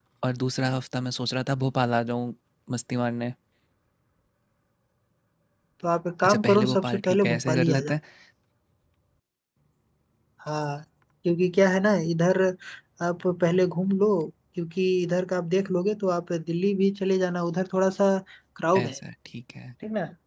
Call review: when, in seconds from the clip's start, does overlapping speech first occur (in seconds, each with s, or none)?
6.2 s